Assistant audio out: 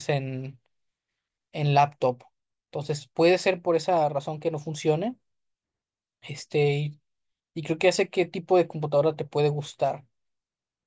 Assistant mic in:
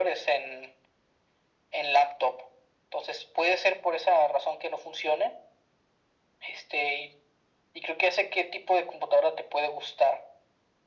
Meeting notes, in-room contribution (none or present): none